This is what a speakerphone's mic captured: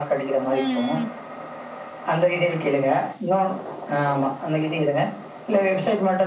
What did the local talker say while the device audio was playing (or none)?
ம்